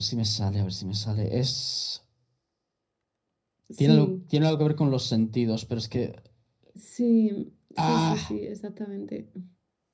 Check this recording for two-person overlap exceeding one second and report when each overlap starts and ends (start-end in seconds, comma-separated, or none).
none